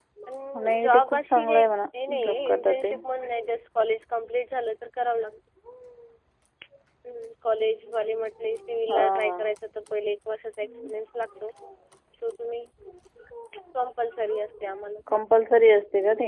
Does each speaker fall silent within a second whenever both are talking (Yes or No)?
No